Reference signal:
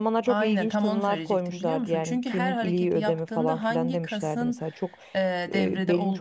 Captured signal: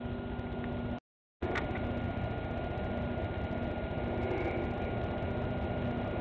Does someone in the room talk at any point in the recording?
No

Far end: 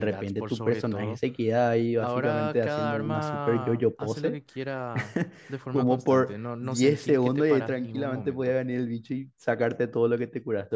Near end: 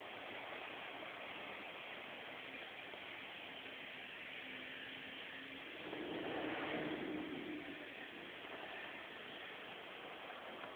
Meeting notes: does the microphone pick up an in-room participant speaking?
No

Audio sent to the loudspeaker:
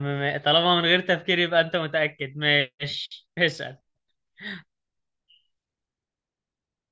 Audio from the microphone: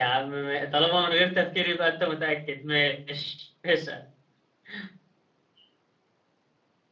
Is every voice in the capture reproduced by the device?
Yes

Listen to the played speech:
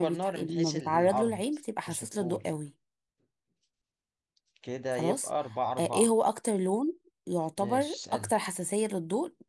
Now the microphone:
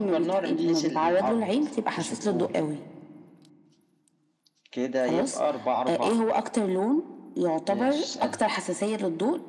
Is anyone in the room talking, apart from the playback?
No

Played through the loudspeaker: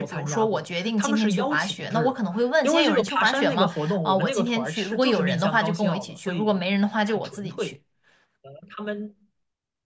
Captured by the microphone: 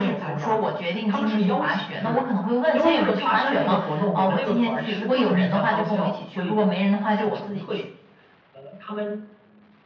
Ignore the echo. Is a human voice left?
No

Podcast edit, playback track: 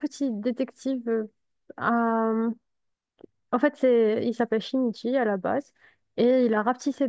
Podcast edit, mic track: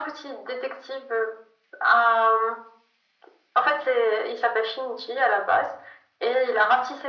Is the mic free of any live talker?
Yes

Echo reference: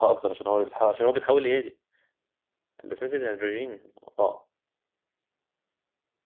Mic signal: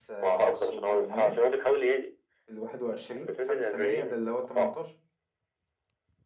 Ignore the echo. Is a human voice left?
Yes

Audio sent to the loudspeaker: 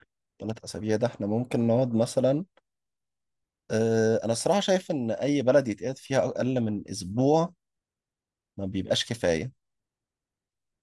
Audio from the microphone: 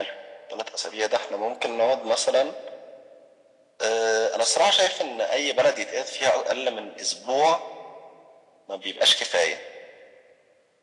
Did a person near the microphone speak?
No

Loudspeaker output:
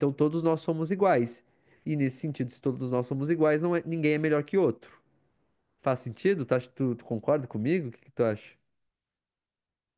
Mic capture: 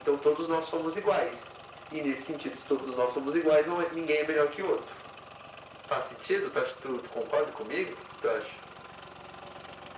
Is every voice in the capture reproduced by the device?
Yes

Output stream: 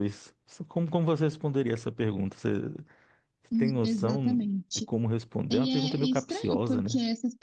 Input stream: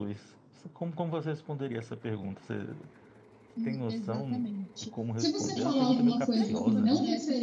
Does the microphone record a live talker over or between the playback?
Yes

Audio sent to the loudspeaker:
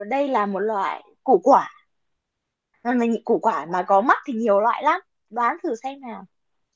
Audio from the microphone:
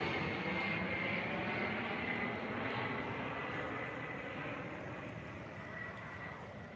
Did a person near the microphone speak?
No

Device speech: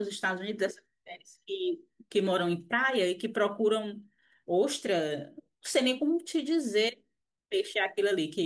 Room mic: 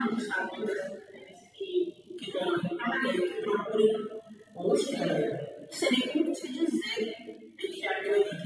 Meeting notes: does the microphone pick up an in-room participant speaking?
No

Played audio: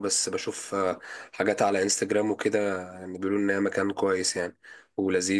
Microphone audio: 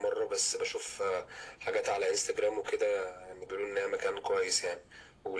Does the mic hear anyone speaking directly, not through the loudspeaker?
No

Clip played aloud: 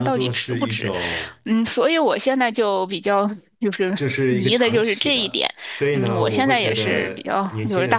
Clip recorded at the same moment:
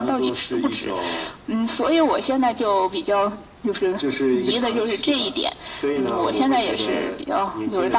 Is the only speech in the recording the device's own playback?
Yes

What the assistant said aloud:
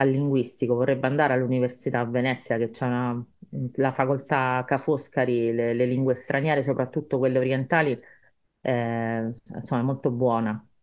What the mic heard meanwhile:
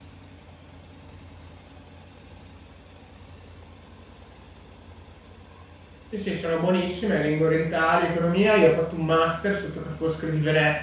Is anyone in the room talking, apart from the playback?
Yes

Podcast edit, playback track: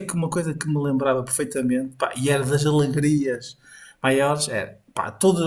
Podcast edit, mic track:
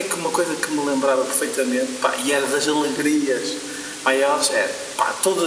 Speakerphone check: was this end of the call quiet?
Yes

